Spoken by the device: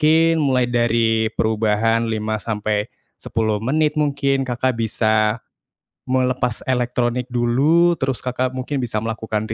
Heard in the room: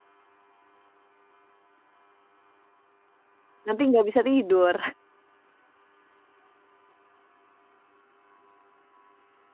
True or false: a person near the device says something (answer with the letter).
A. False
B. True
B